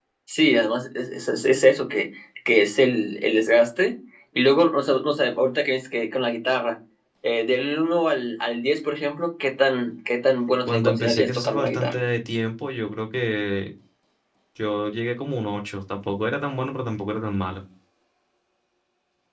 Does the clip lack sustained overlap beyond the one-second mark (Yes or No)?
No